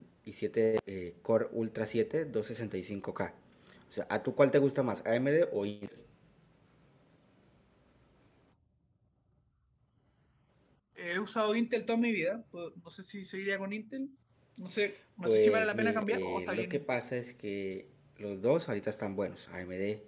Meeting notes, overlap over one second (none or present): present